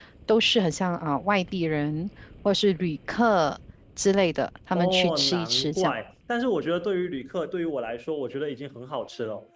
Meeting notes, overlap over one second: present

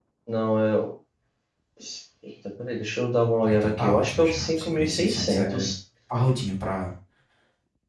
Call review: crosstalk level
present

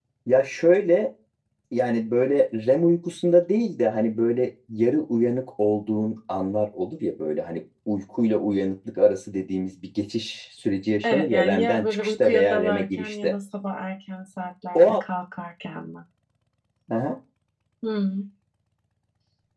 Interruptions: present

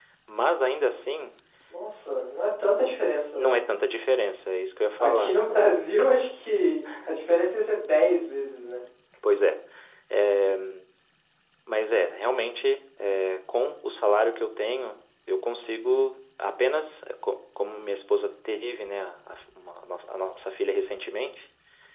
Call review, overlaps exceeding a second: none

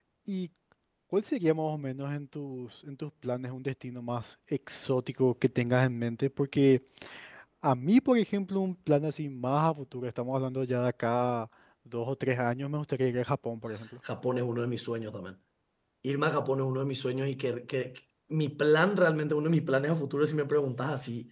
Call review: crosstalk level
none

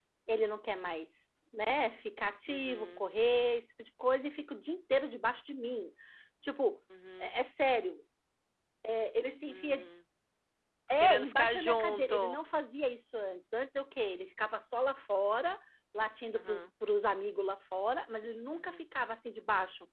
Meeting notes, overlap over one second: present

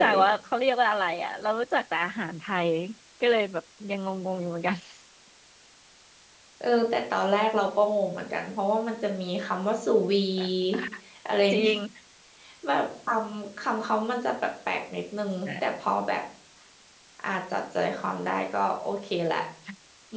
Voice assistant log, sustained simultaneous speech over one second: none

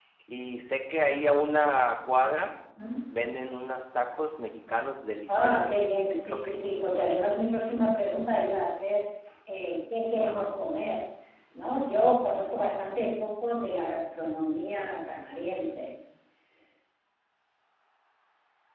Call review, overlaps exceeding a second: present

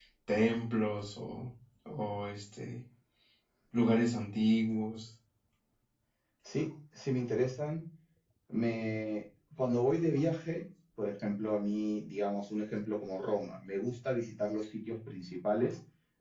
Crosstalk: none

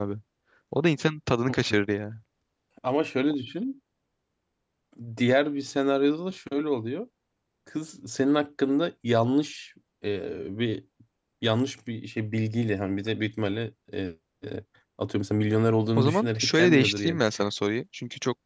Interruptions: present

